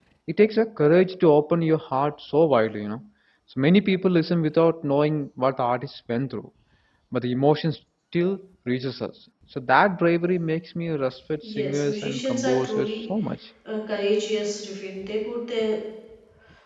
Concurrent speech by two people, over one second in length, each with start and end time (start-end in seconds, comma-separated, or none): 11.5-13.0